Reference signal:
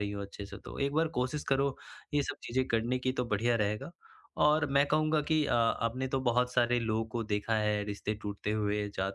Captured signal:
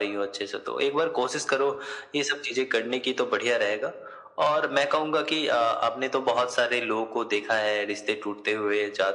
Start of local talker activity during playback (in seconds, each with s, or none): none